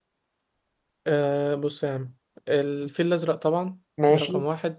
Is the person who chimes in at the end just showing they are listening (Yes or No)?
Yes